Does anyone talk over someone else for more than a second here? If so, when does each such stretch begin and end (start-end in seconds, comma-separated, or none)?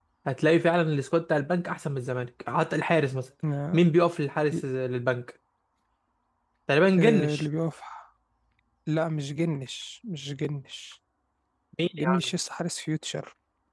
none